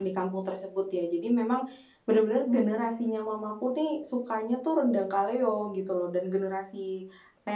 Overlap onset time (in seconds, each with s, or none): none